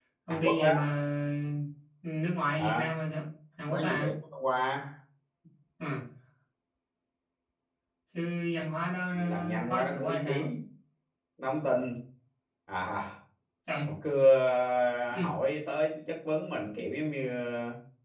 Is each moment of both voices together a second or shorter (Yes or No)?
No